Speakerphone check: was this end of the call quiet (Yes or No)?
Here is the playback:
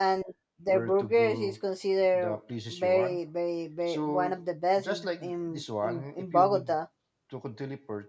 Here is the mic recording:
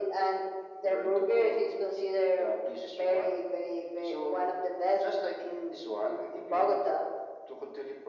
Yes